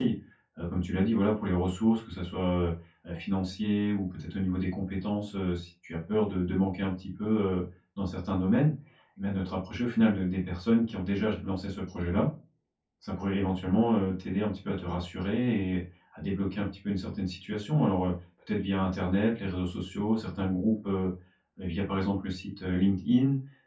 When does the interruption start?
none

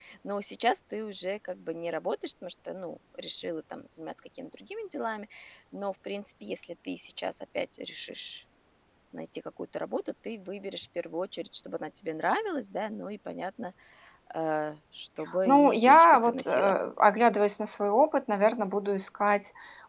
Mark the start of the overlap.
15.3 s

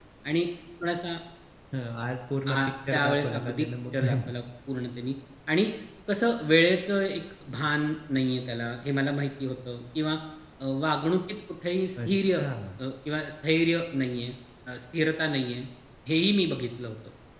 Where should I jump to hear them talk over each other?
2.5 s

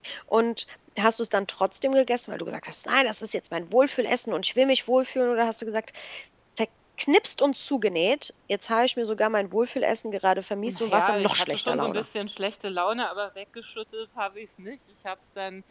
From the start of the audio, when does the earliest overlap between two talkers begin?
10.6 s

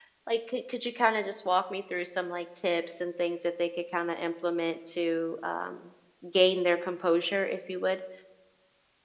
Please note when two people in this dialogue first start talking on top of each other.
none

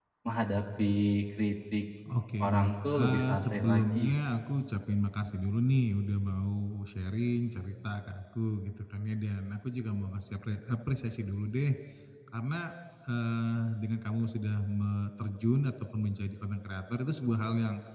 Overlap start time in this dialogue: 2.4 s

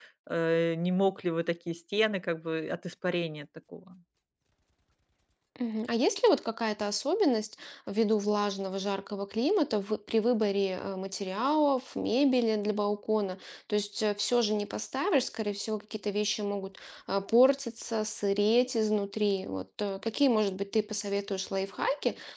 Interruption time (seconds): none

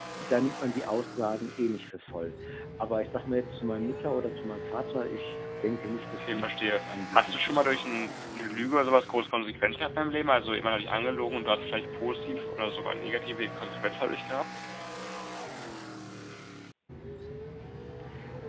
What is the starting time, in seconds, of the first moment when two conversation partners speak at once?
6.2 s

